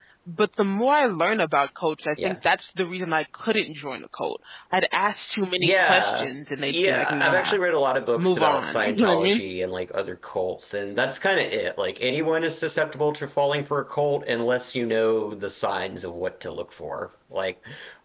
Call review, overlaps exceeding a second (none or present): present